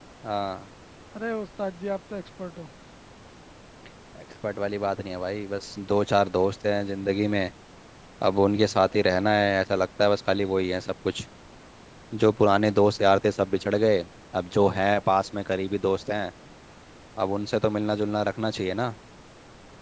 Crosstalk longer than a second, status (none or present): none